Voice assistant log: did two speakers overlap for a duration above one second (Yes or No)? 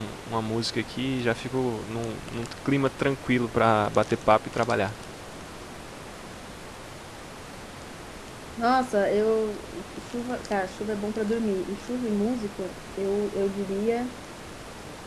No